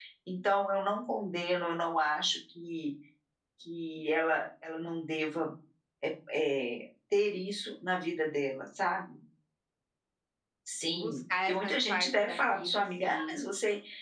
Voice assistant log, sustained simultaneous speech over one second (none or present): present